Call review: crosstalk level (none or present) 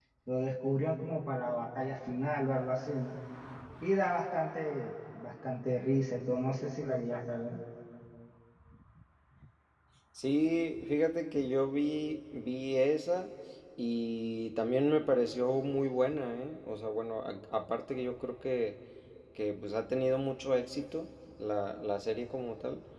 none